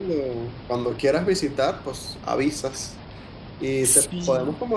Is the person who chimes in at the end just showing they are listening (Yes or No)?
Yes